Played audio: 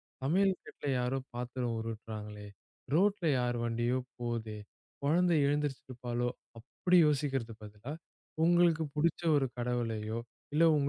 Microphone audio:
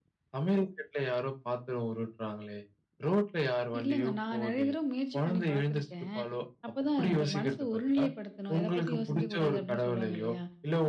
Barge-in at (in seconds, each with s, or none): 3.8 s